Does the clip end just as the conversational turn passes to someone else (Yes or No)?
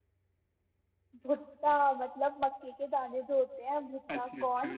Yes